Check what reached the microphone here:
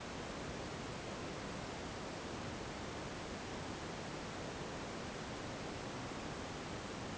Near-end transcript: none

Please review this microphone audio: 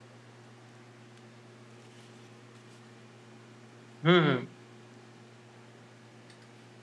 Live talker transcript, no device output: हं, हं.

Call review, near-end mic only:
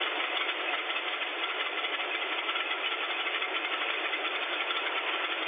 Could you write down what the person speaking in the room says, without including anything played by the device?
none

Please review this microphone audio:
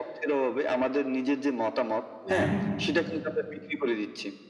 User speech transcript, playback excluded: হ্যাঁ।

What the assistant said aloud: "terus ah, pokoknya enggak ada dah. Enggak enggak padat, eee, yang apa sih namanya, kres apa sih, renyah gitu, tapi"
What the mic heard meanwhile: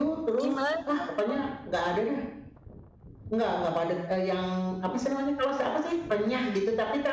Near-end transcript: Gimana tuh?

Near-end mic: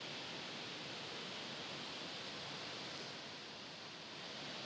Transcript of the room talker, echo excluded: none

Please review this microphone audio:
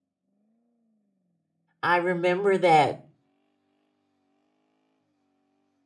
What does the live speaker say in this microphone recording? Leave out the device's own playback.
I remember that.

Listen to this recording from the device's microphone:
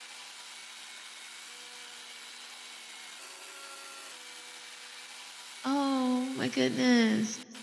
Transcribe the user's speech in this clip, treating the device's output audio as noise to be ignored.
Oh my goodness.

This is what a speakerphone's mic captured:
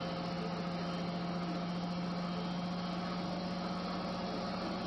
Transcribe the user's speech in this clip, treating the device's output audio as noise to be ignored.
none

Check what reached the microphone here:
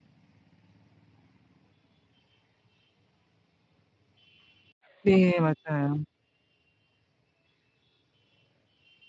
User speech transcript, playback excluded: 네, 맞아요.

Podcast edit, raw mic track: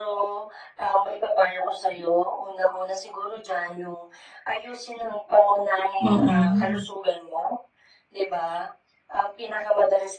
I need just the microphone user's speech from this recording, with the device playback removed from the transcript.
Mm.

